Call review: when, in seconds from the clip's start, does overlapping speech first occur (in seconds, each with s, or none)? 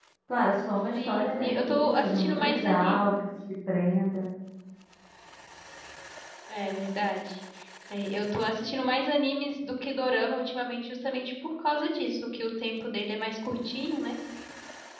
0.9 s